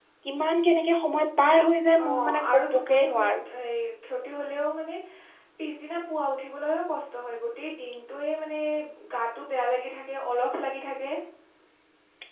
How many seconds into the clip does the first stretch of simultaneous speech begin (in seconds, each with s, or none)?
1.9 s